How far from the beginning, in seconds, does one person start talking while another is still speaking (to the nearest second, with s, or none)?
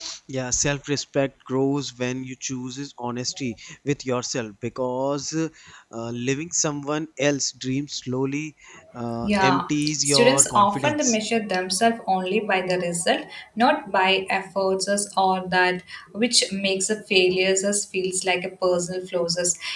9 s